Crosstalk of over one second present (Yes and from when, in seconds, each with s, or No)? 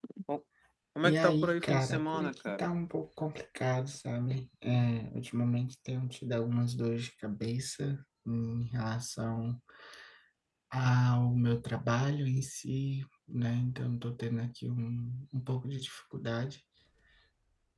Yes, from 1.0 s